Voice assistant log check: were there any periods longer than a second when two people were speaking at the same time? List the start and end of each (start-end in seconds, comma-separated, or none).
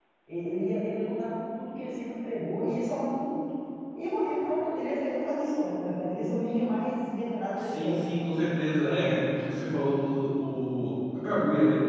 none